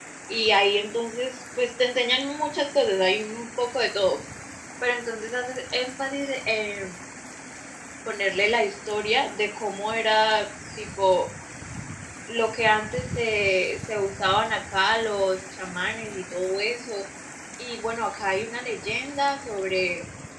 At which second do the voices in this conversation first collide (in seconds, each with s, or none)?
none